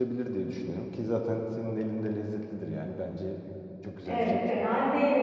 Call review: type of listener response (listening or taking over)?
taking over